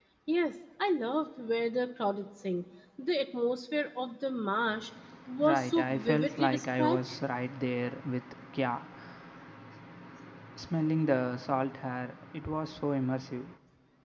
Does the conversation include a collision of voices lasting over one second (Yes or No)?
Yes